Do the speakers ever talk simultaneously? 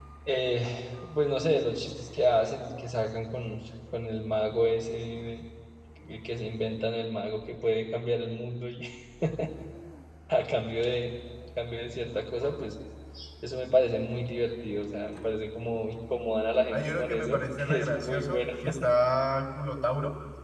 Yes, from 16.7 s

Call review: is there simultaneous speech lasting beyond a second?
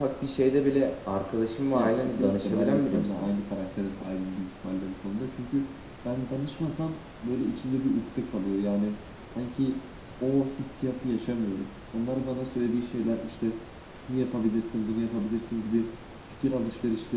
Yes, from 1.7 s

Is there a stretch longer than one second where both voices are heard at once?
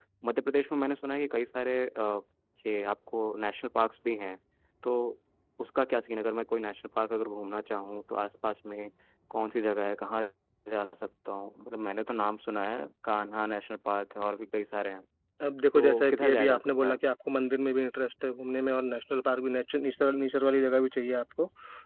Yes, from 15.7 s

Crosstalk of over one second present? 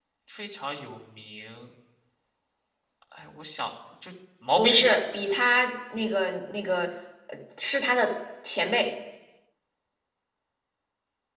No

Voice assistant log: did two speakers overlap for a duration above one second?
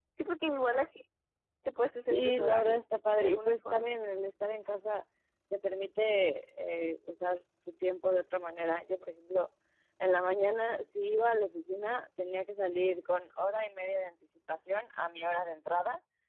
Yes, from 2.1 s

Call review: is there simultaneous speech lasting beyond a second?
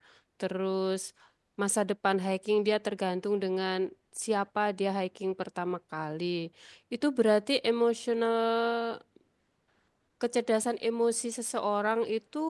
No

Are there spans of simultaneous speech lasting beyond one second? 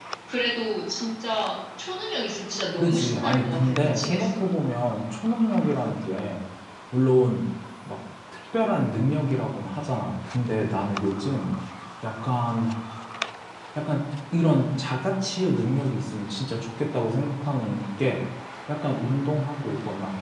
Yes, from 2.8 s

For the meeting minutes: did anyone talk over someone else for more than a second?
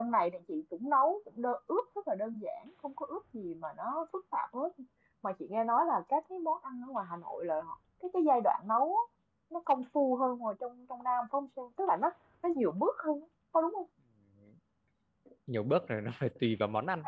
No

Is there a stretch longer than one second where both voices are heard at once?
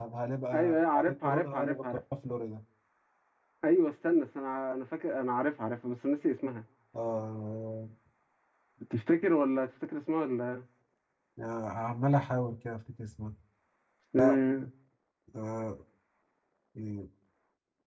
Yes, from 0.5 s

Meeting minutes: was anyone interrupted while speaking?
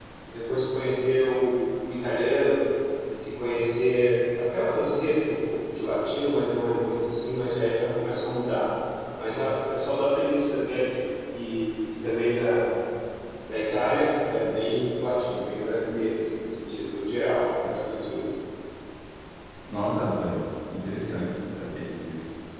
No

